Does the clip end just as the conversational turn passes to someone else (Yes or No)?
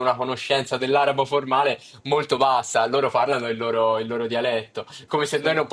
No